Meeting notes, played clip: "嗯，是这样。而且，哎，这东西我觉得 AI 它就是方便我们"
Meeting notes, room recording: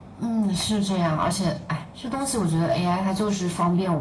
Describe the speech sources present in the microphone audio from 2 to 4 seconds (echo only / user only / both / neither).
echo only